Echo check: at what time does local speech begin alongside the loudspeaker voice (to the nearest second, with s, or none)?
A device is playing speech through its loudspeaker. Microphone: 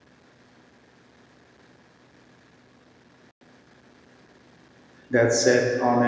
5 s